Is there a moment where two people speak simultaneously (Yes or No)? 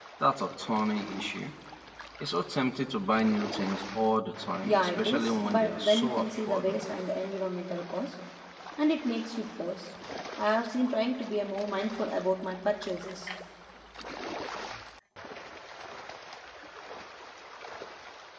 Yes